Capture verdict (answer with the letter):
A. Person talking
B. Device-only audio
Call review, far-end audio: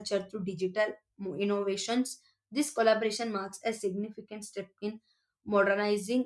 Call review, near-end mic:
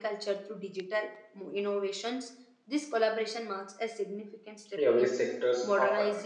A